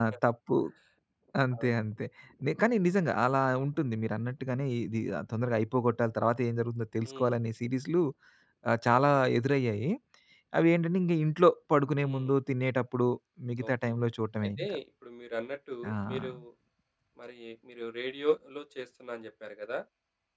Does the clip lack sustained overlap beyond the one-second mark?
Yes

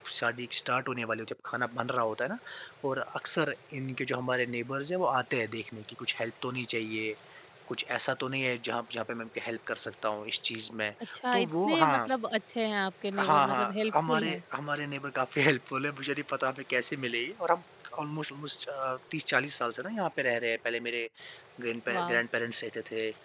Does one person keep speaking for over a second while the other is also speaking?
Yes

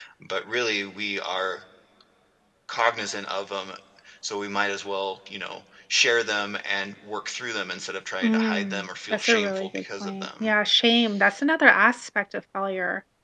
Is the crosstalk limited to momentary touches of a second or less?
No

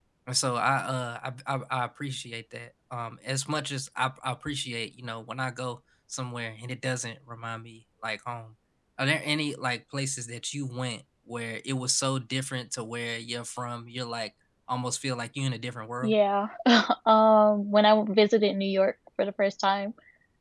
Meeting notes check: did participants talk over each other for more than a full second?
No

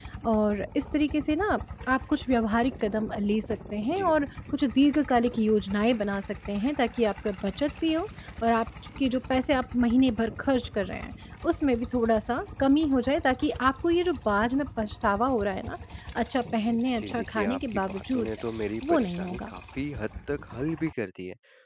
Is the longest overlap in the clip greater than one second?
Yes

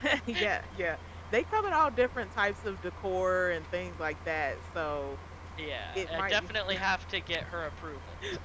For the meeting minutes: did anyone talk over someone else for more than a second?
No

